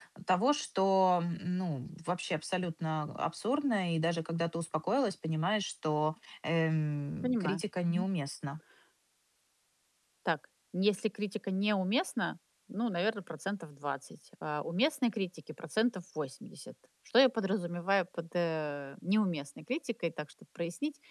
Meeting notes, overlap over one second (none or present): none